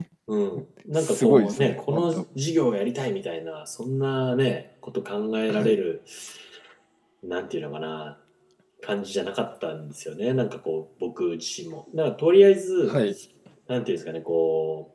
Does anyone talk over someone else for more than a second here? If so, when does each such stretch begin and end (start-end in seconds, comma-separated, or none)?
1.0-2.2